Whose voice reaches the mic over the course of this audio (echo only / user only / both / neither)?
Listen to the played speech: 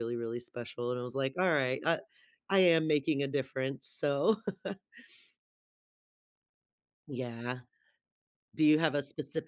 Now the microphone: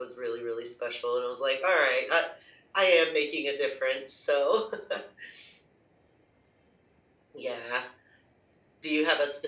echo only